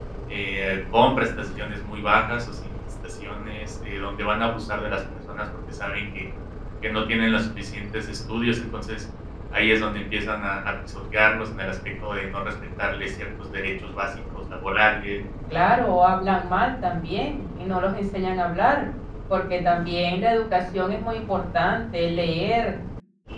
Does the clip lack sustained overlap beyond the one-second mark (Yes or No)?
Yes